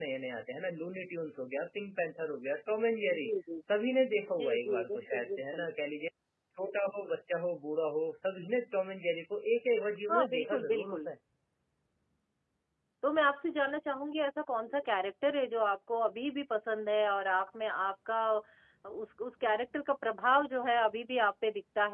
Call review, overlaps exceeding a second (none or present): present